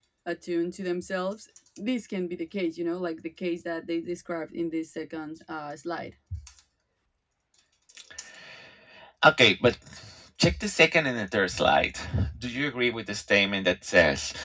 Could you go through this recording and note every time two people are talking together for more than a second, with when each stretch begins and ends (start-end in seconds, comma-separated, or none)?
none